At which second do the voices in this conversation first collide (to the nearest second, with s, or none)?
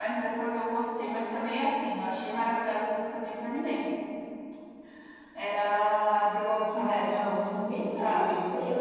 7 s